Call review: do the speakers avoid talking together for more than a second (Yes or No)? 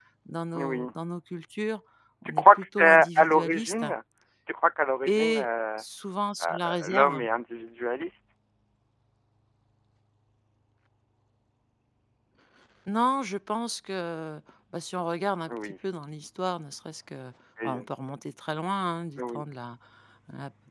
No